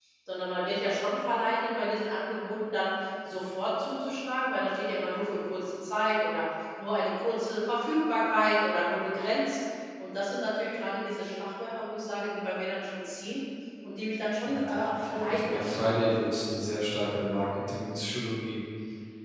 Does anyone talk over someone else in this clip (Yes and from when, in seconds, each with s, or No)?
Yes, from 14.4 s